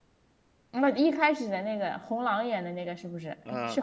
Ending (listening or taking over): taking over